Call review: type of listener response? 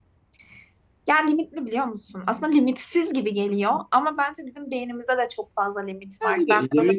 taking over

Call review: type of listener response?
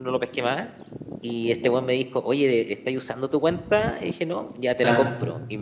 listening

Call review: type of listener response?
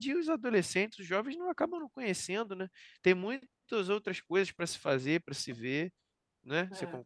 taking over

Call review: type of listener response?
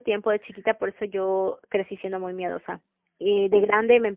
listening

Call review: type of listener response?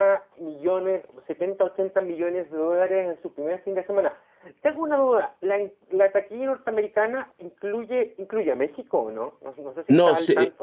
taking over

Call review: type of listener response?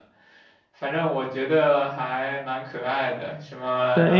taking over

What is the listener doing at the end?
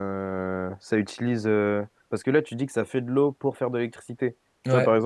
listening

